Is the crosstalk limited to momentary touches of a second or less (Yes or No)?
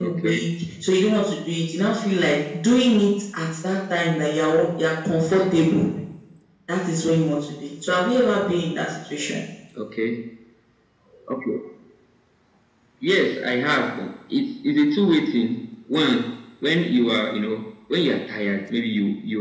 Yes